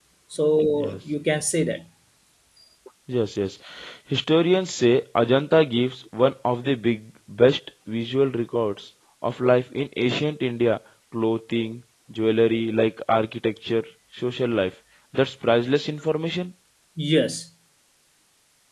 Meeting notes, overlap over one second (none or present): none